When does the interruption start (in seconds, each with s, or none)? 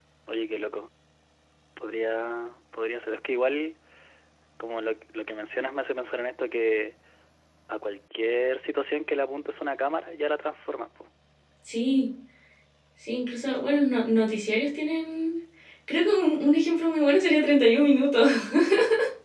none